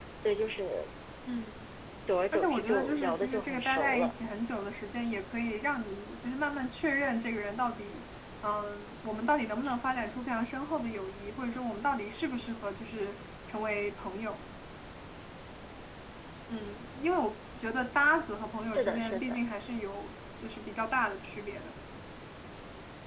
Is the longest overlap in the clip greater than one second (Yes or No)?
Yes